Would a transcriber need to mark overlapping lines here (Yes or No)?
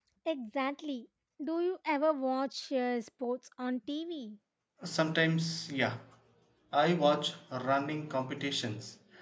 No